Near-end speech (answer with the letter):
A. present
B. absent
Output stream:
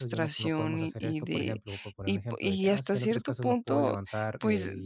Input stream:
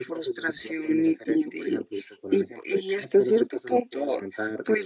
B